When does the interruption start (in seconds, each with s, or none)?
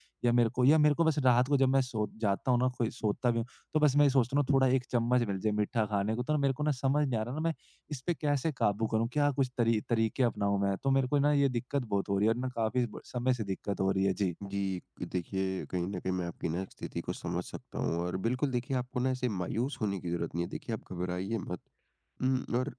none